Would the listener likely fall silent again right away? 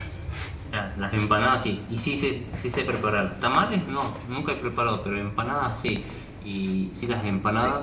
Yes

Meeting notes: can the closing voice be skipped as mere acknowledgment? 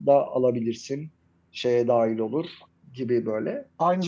No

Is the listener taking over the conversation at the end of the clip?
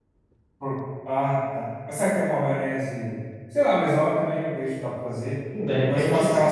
Yes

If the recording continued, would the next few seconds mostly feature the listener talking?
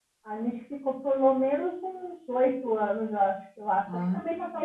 No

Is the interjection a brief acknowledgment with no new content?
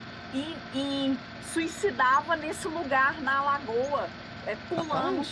Yes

